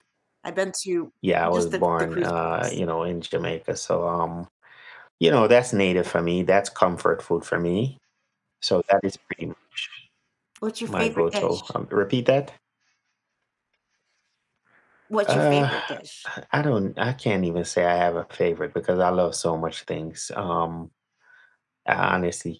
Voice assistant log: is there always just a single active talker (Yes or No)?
No